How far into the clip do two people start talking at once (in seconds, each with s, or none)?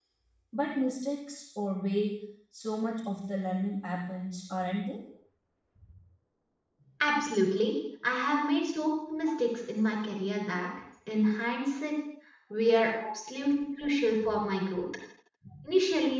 none